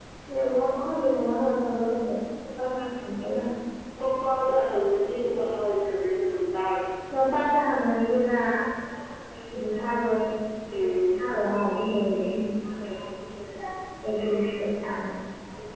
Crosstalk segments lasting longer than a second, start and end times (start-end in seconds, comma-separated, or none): none